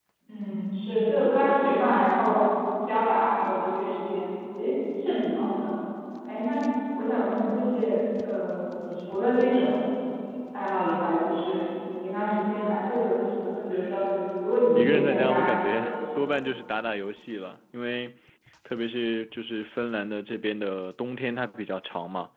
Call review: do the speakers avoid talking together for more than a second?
No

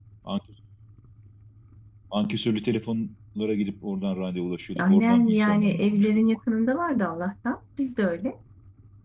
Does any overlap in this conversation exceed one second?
Yes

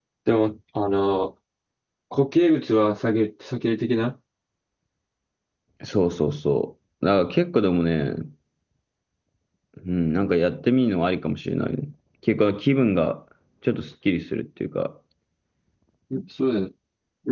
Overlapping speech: No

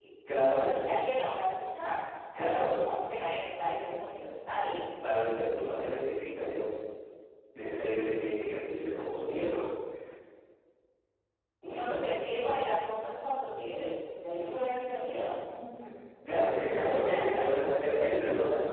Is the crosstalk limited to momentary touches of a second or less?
No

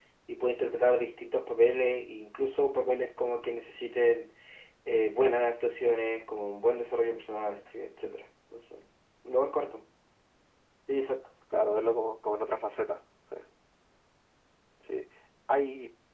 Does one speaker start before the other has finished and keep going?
No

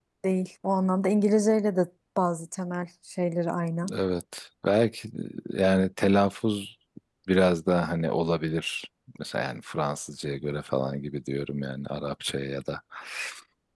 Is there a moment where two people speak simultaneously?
No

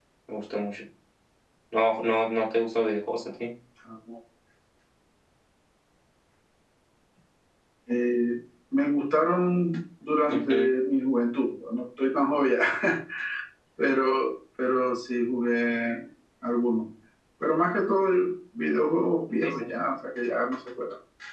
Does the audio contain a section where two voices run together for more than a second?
No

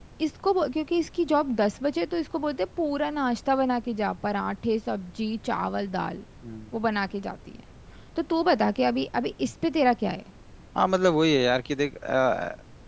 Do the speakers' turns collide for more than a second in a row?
No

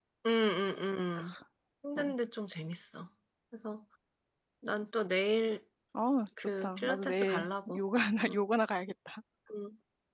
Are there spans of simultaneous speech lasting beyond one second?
Yes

